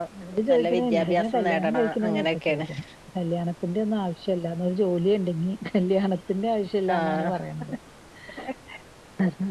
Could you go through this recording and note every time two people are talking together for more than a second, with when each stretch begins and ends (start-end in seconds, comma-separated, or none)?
0.5-2.6